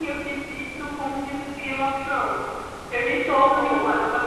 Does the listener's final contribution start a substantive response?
No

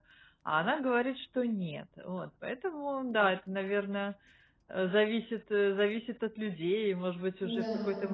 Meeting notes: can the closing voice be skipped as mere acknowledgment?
Yes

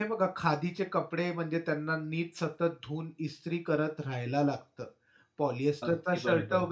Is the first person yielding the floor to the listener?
No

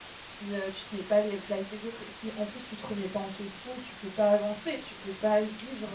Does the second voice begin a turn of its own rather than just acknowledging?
No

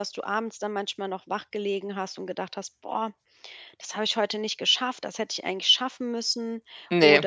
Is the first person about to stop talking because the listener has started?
No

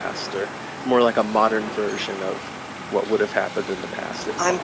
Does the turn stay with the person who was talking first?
No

